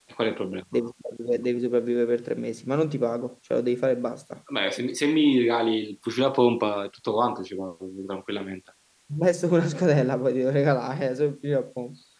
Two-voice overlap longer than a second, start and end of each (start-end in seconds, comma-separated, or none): none